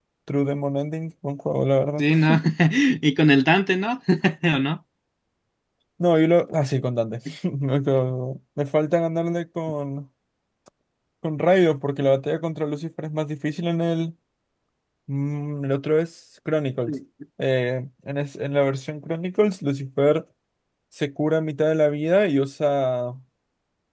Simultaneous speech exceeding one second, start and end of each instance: none

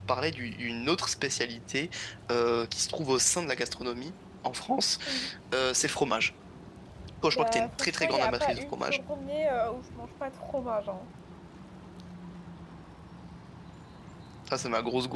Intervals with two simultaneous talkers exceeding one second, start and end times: 7.3-9.0

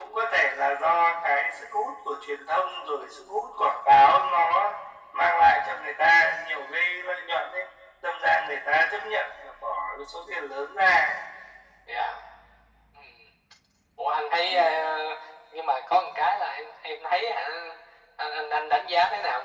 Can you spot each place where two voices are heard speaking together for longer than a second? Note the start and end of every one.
none

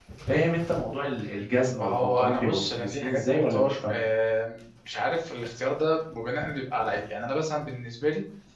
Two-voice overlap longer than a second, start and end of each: 1.8-4.0

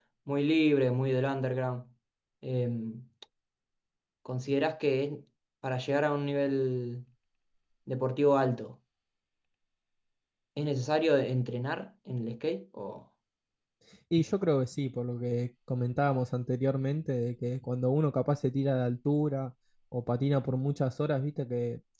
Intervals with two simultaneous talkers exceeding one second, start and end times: none

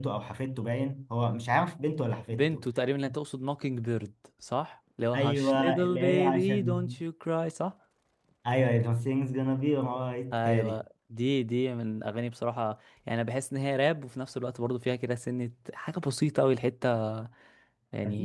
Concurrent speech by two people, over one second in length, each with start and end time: 5.2-7.0

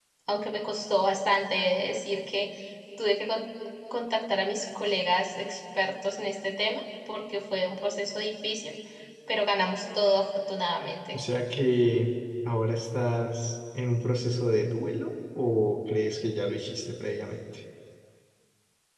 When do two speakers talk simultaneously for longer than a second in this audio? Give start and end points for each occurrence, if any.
none

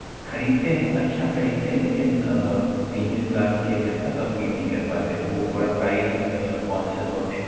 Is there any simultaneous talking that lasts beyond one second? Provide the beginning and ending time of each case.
none

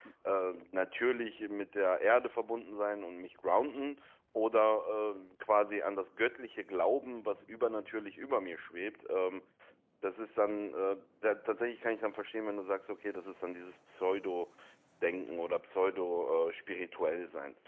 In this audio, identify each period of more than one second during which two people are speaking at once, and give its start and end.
none

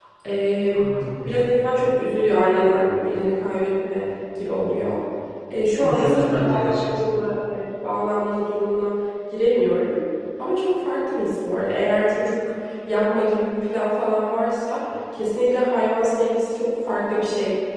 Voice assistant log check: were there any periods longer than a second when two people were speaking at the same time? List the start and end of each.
5.8-7.1

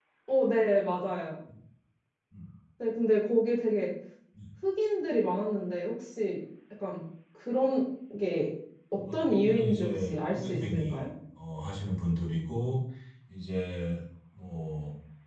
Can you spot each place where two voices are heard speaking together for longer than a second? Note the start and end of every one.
9.1-11.0

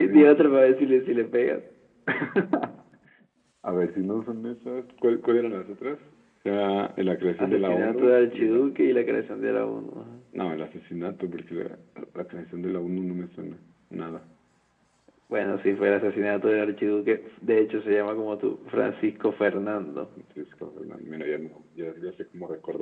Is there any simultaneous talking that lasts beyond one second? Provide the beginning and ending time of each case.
7.4-8.7

